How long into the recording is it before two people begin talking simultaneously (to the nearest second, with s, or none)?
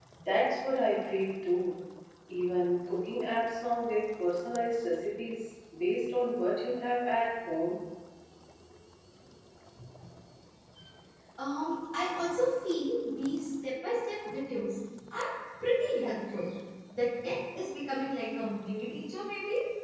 none